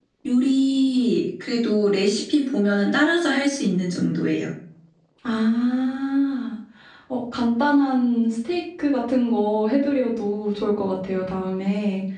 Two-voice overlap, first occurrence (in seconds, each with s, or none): none